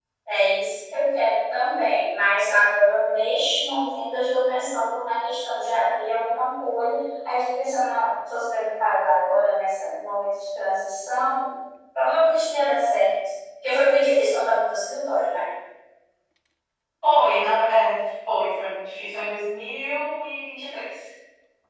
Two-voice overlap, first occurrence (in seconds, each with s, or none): none